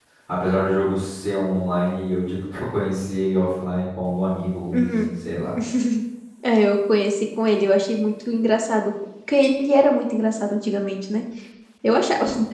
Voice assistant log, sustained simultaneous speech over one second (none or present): none